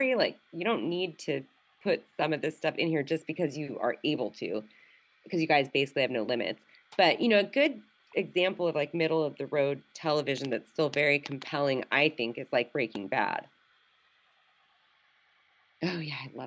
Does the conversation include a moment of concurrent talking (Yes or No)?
No